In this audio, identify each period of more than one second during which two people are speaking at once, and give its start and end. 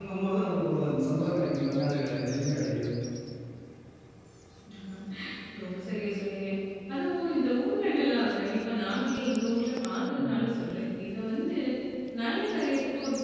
none

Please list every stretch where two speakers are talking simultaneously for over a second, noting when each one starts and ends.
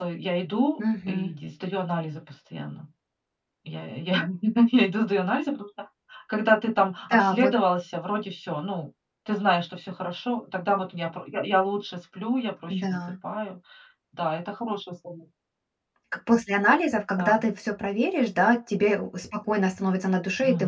none

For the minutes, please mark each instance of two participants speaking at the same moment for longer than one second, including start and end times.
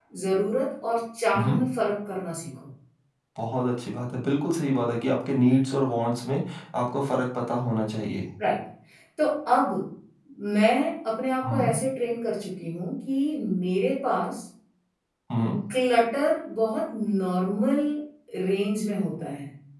none

